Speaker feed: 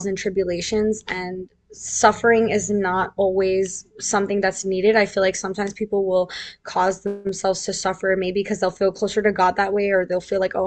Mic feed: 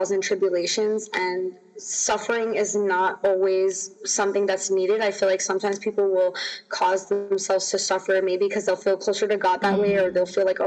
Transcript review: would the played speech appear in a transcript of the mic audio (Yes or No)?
Yes